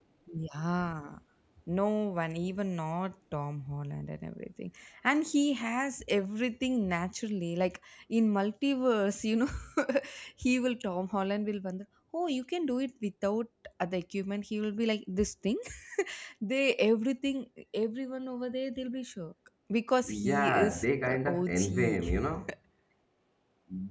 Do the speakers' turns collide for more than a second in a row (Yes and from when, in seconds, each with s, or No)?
Yes, from 20.0 s